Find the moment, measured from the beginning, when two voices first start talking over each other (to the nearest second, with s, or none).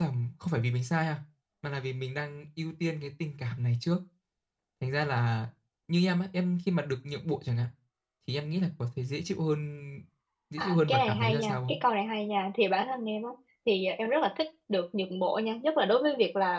11 s